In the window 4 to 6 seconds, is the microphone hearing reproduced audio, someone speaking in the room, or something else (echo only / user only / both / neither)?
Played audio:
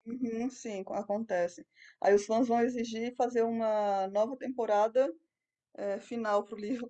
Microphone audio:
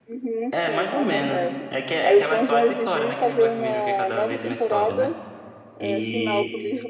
both